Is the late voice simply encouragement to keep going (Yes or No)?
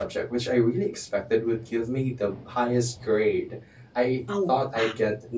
Yes